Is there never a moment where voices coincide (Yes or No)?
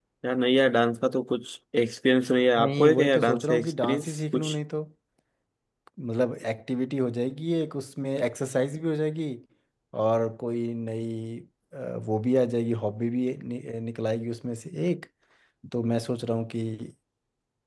No